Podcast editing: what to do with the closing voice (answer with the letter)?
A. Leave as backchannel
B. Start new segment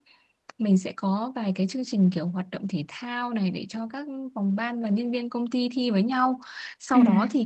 A